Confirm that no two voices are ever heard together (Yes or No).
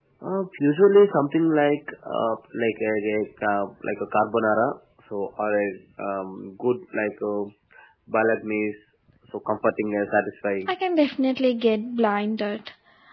Yes